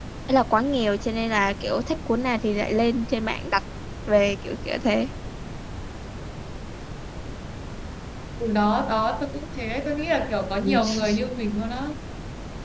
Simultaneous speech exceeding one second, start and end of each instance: none

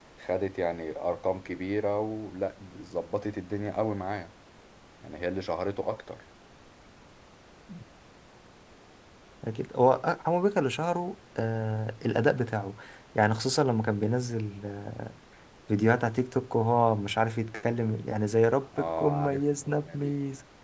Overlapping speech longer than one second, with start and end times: 18.8-20.1

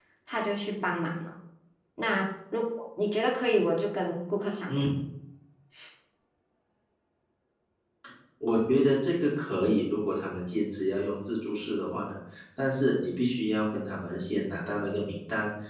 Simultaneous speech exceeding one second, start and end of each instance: none

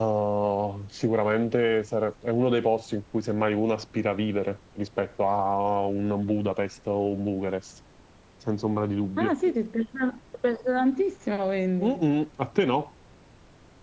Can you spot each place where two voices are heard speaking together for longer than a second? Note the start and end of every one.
none

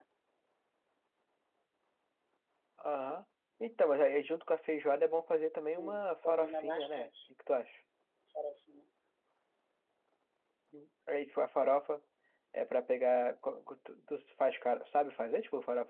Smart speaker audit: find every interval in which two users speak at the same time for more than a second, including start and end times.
5.6-7.1

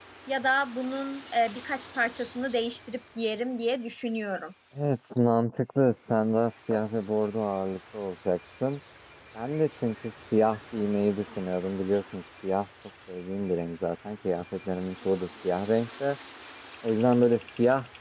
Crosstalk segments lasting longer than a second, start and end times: none

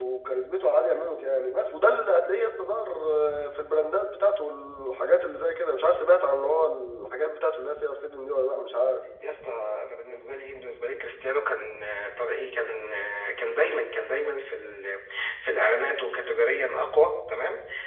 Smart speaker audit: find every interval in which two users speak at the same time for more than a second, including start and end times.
none

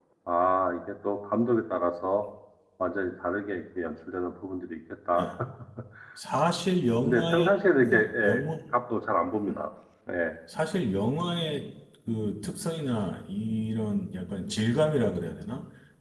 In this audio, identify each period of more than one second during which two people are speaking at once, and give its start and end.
7.0-8.4

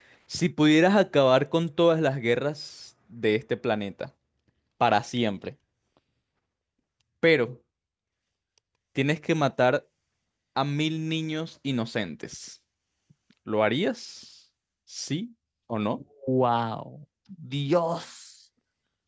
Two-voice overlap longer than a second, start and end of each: none

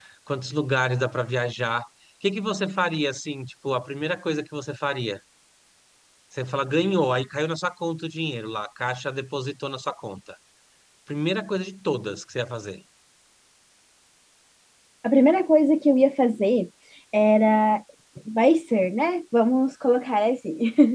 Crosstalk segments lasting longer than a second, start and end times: none

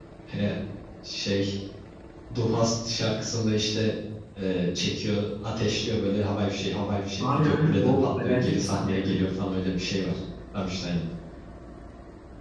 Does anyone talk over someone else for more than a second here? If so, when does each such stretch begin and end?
7.2-9.2

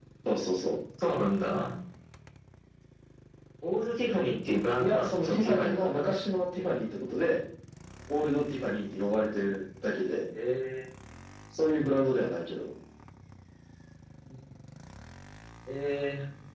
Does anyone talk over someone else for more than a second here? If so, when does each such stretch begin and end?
4.8-6.1

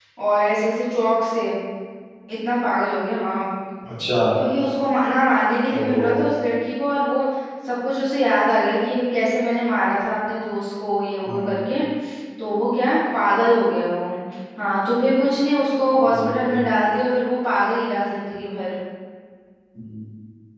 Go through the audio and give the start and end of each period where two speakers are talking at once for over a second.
none

